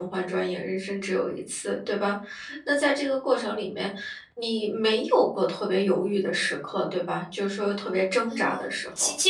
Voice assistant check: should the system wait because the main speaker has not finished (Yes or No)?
No